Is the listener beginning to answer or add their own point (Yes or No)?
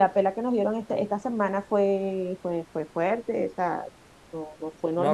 Yes